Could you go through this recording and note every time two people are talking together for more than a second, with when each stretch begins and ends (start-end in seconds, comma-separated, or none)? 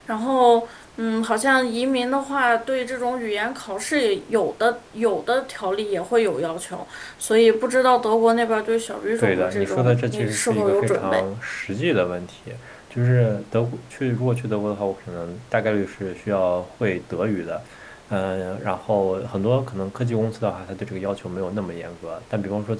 9.2-11.2